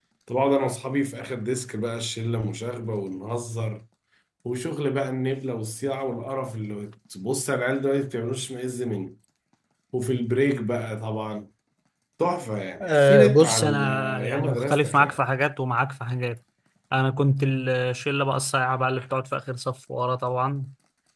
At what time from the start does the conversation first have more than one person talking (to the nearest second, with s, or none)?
13 s